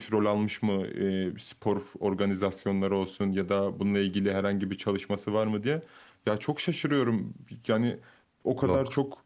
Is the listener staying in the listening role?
Yes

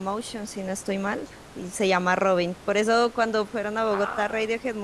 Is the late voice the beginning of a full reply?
No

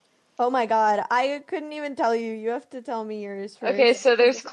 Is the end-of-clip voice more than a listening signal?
Yes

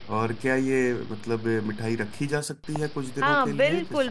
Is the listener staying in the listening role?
No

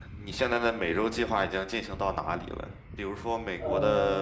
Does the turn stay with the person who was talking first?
Yes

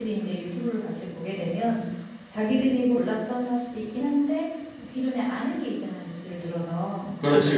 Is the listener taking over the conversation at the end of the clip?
No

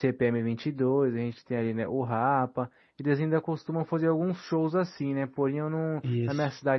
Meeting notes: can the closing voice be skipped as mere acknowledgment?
Yes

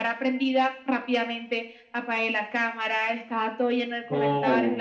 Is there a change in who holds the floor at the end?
No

